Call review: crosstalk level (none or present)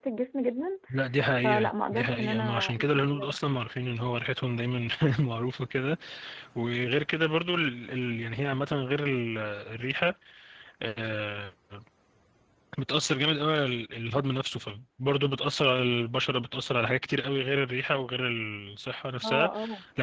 present